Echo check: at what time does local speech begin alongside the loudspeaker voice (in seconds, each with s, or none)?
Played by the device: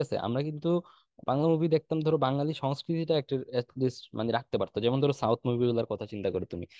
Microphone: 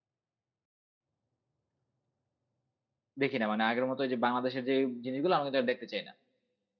3.2 s